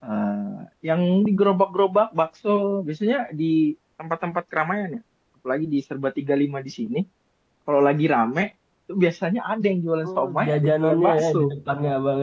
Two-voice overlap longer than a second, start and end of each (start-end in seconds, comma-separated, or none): 10.0-11.5